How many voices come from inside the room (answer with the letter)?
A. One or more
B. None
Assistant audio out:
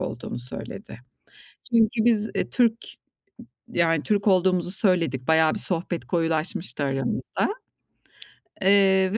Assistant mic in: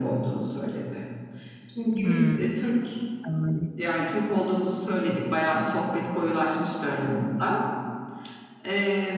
A